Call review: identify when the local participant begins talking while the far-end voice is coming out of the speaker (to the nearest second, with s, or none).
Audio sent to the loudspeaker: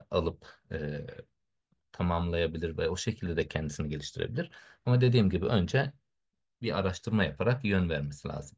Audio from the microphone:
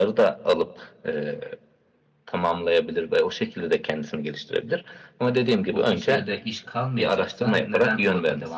6 s